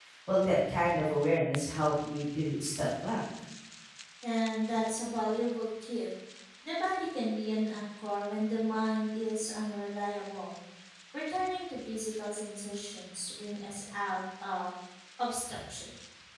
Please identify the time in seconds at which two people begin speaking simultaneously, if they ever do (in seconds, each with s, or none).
none